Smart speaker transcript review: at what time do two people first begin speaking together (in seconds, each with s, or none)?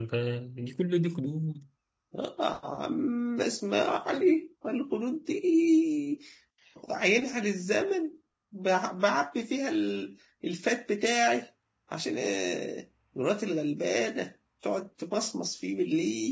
none